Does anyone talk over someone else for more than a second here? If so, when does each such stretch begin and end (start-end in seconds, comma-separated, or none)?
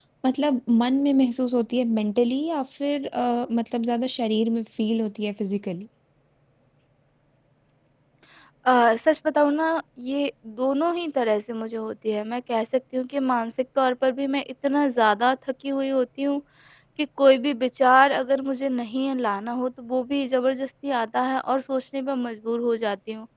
none